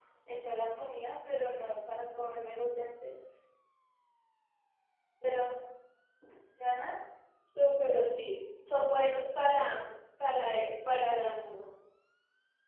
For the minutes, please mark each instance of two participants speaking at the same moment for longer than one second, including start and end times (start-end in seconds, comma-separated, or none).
none